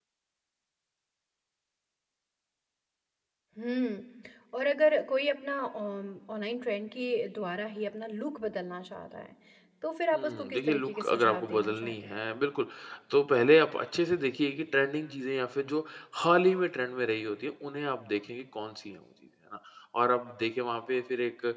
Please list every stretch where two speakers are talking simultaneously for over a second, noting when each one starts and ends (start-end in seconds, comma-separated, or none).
10.1-12.2